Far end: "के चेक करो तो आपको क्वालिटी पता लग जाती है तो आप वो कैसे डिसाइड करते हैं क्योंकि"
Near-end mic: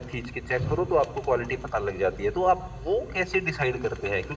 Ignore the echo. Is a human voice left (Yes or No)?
No